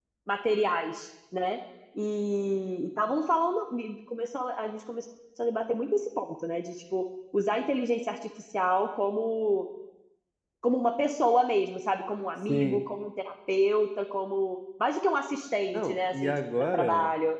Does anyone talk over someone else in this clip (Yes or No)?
Yes